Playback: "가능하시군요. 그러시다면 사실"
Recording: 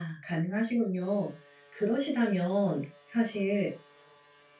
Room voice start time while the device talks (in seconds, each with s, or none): none